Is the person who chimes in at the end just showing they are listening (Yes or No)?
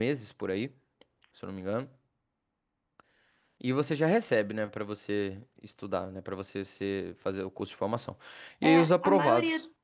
No